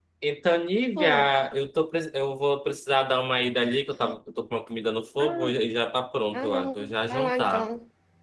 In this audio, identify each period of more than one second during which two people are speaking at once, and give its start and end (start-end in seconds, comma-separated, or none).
6.3-7.7